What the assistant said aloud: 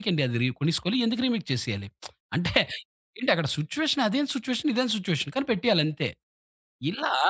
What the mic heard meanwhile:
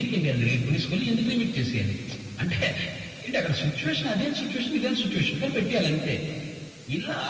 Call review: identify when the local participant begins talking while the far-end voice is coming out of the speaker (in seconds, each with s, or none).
none